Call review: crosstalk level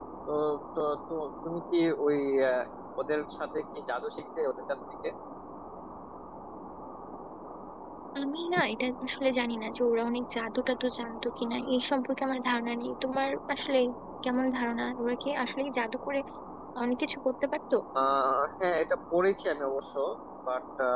none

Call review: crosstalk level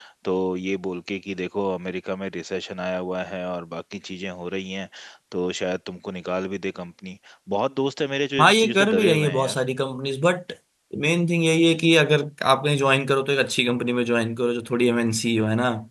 present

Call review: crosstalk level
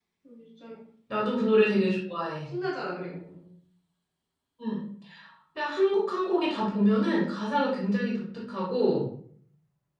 none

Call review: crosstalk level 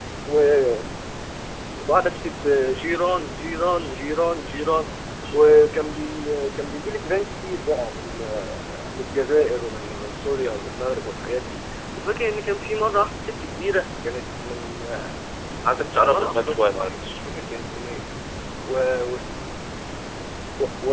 present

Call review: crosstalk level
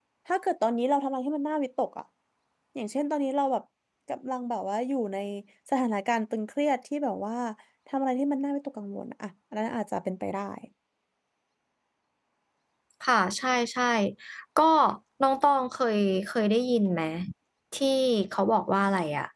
none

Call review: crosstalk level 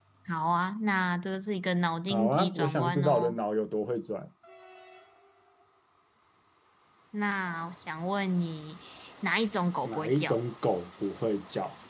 present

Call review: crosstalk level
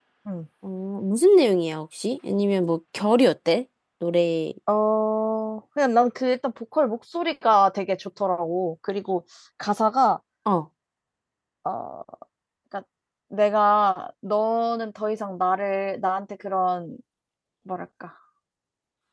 none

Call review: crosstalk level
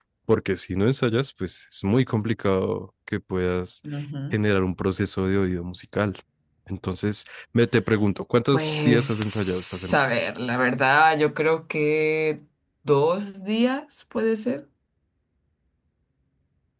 present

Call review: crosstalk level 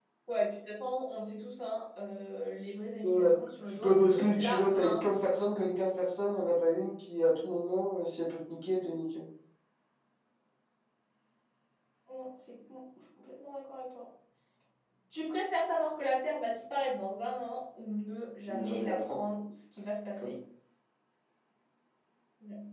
present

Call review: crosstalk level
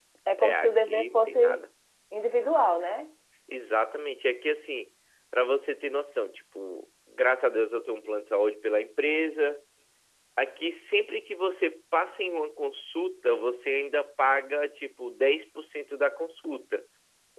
present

